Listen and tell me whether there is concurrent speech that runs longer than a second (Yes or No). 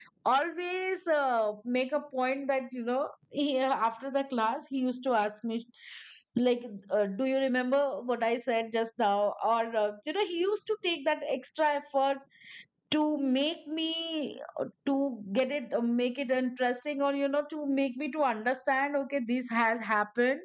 No